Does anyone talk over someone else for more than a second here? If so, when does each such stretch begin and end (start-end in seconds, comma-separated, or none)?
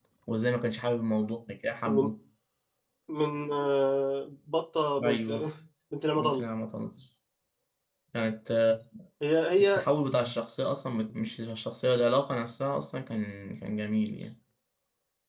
none